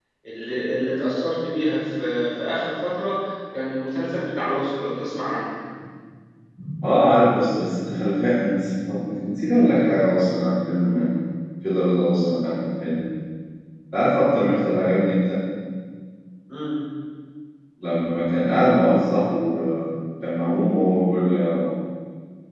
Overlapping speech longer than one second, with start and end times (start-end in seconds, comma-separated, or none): none